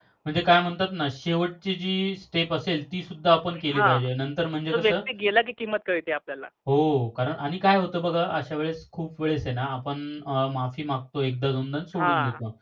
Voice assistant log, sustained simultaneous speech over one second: none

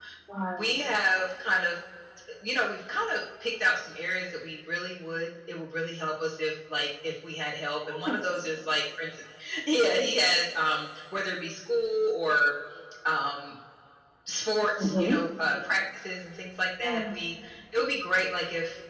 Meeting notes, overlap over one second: none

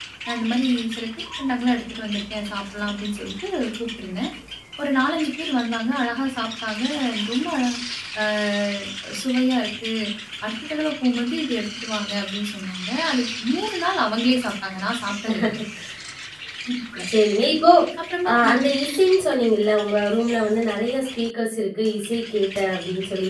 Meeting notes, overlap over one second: none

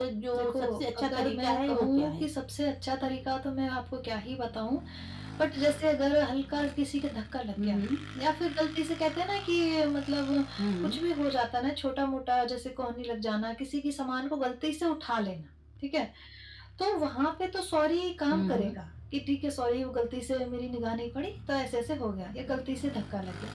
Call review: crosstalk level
present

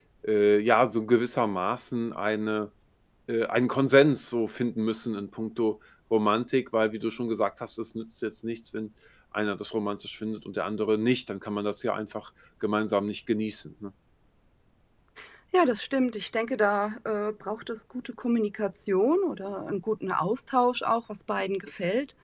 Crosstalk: none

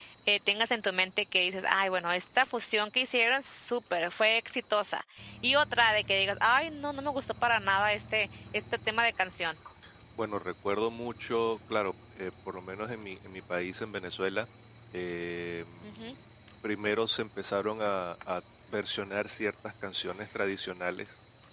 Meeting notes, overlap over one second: none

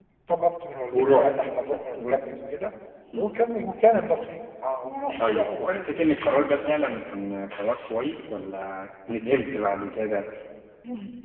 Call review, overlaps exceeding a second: present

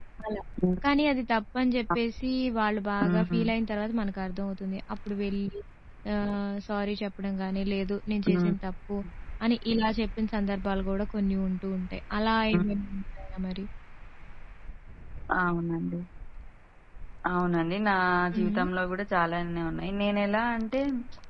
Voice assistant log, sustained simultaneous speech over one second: none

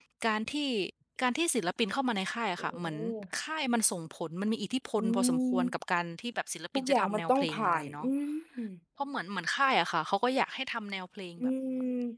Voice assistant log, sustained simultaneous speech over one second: present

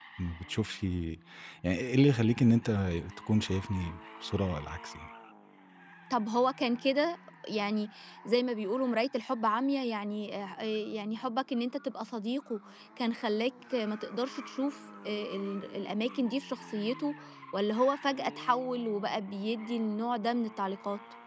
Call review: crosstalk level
none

